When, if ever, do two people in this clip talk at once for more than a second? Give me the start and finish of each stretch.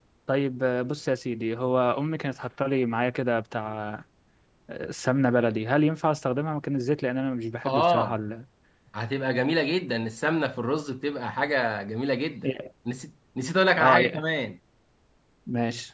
none

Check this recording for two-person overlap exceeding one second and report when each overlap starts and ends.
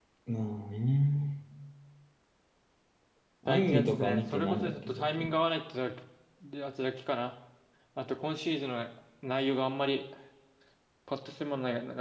3.5-5.4

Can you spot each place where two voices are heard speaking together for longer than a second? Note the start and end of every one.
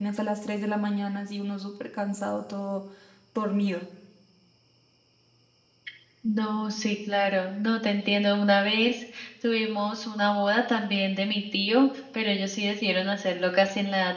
none

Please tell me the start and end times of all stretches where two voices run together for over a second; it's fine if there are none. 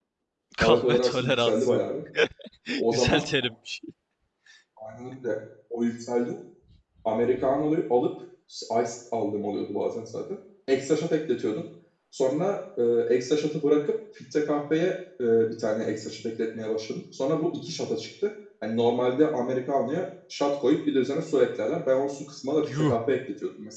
0.6-1.8

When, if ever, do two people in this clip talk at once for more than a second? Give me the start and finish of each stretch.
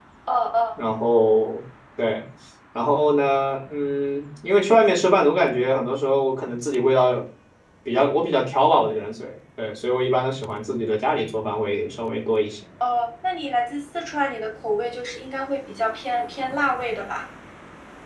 none

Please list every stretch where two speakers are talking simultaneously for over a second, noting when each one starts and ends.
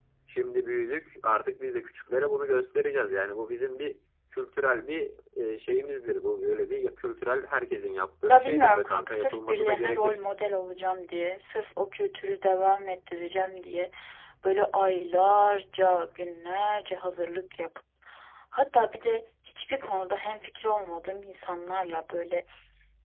8.3-10.2

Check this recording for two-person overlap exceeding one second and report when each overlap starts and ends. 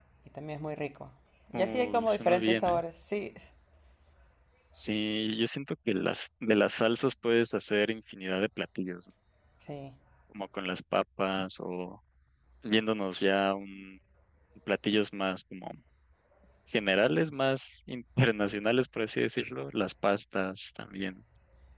1.5-2.8

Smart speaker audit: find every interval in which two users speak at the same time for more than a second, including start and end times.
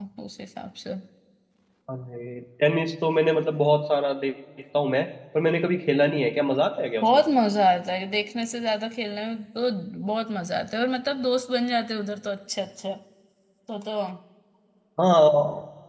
none

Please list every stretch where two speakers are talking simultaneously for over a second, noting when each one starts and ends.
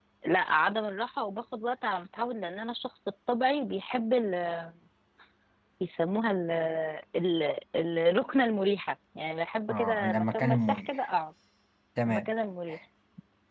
9.7-11.1

